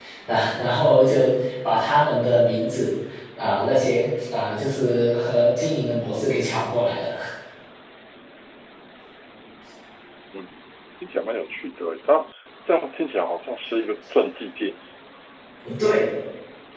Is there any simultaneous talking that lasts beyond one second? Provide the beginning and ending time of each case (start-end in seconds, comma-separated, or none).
none